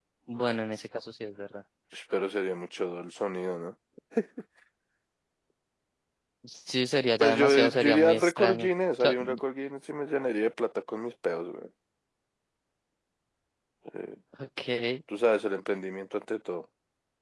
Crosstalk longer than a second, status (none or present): present